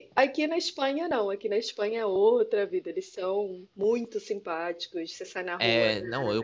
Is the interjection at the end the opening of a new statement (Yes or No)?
Yes